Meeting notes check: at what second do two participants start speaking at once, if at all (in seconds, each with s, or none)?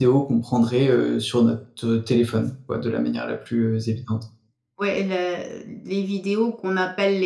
none